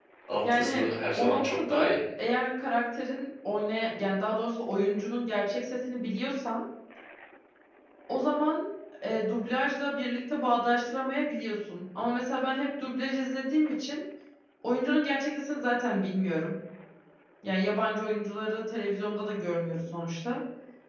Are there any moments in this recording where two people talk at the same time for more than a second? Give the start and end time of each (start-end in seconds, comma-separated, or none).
0.5-2.0